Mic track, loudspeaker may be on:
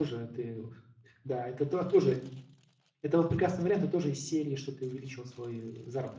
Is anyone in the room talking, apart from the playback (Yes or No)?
Yes